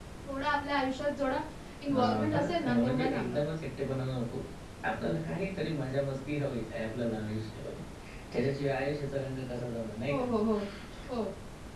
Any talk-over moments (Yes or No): Yes